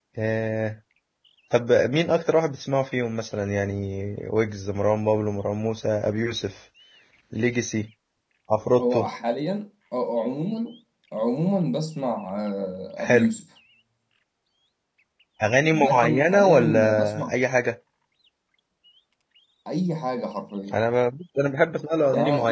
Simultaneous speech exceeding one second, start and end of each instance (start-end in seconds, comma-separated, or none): 15.7-17.3